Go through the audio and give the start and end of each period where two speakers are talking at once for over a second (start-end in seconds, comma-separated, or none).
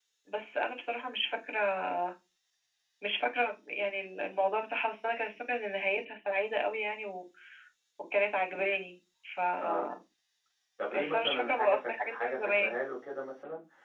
10.9-12.8